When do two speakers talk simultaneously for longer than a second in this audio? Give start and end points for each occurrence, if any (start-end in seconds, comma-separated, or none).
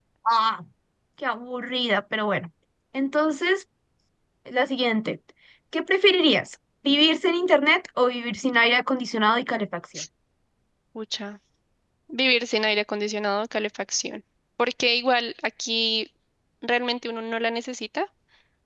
none